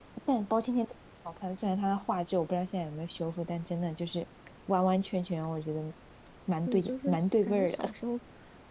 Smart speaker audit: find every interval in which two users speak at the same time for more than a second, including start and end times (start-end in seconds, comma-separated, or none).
6.7-7.9